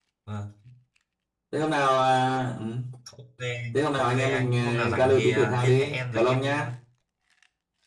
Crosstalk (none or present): present